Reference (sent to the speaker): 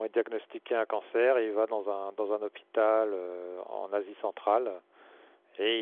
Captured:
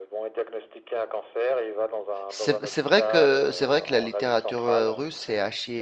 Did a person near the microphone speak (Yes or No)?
Yes